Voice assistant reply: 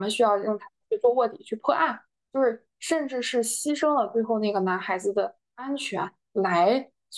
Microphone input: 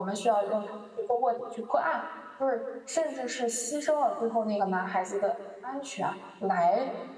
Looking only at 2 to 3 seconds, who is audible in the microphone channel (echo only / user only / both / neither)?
echo only